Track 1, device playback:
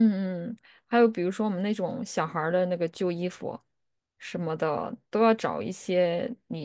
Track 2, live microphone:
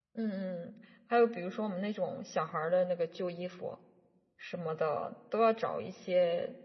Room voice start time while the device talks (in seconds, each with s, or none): none